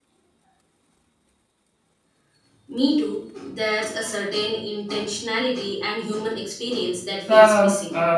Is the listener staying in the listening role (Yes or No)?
No